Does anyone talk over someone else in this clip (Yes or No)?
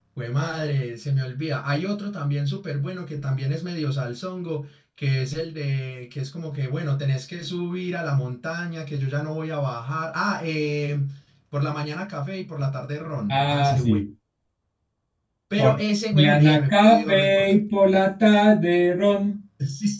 Yes